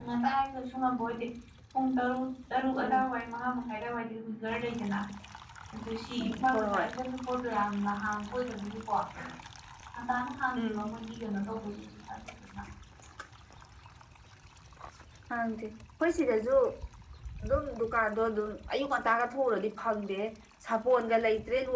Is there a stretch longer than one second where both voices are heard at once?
No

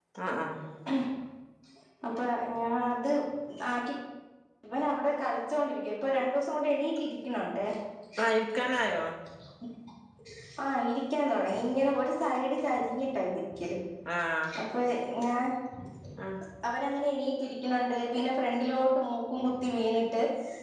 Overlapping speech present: No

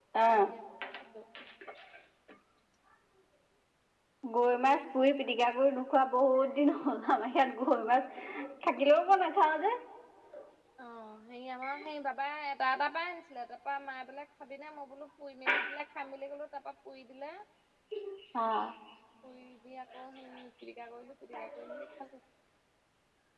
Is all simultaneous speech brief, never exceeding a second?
Yes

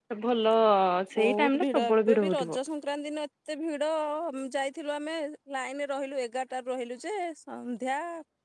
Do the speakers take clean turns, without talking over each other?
No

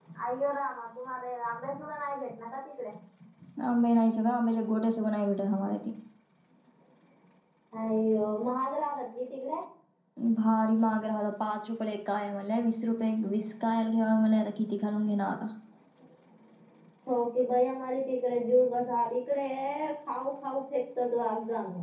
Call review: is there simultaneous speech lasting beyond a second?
No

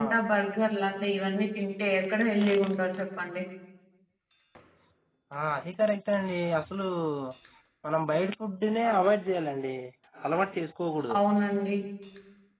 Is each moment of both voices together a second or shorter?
Yes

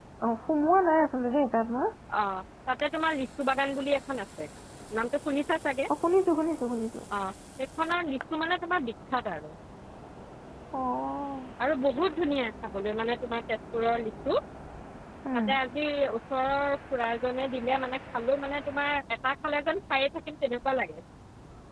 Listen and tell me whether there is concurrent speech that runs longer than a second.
No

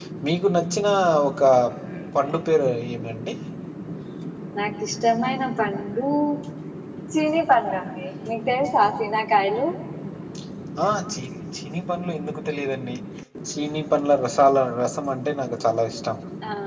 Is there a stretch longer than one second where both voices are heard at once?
No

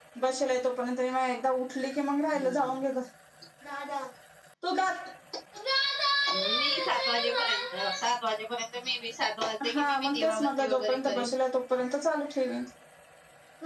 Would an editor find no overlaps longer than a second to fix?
No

